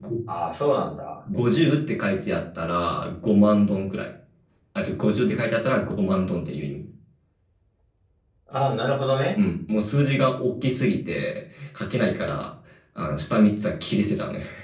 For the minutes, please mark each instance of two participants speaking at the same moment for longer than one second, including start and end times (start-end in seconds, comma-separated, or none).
none